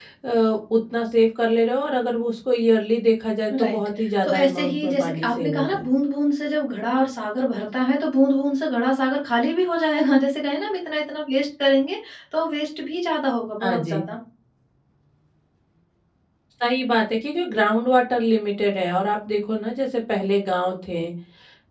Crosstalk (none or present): present